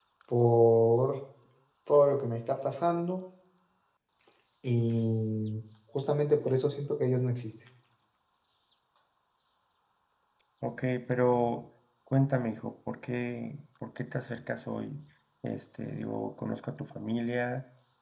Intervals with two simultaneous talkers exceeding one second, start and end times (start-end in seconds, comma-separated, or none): none